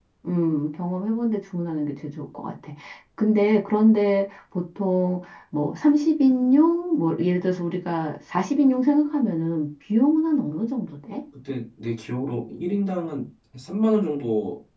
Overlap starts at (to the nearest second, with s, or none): none